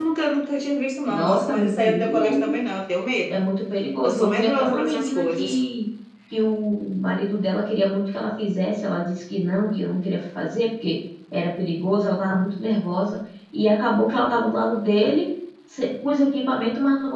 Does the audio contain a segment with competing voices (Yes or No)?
Yes